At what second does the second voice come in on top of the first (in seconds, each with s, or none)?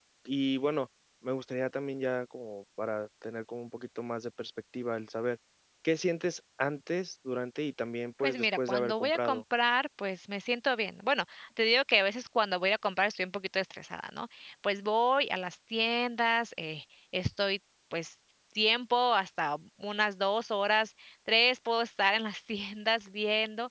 8.2 s